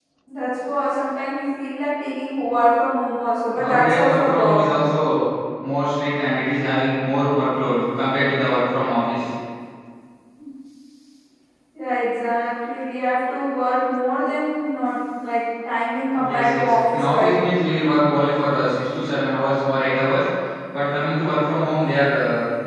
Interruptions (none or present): present